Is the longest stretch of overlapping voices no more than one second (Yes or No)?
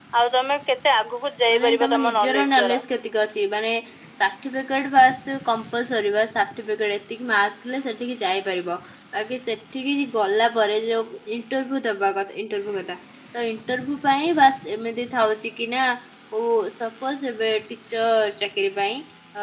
No